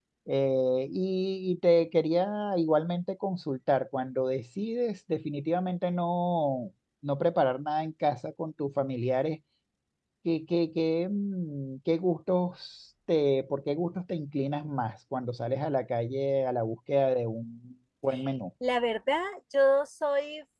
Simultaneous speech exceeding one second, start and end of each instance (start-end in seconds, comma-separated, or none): none